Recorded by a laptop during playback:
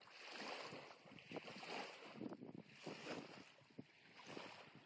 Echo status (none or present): none